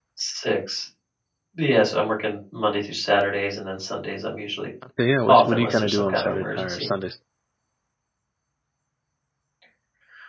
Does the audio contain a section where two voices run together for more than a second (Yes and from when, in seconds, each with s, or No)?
Yes, from 5.3 s